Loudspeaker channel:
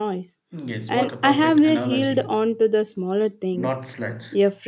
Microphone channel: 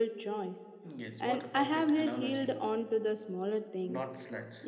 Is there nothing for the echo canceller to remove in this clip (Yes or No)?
No